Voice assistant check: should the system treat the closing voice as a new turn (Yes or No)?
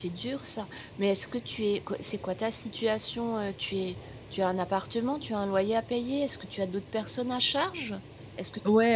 Yes